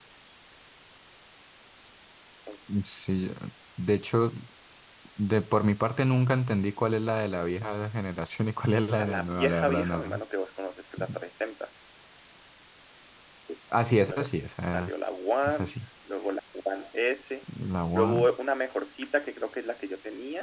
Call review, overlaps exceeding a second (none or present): present